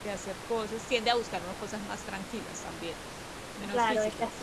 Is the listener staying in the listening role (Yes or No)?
No